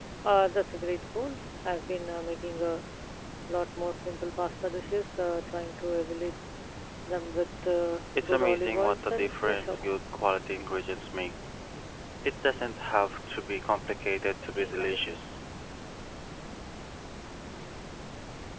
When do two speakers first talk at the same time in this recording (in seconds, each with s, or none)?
8.2 s